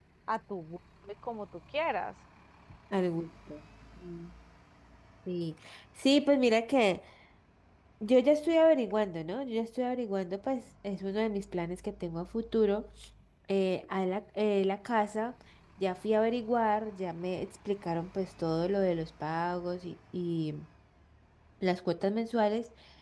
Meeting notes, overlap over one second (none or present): none